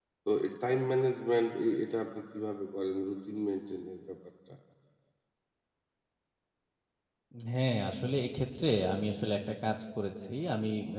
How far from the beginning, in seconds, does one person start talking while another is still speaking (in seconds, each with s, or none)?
none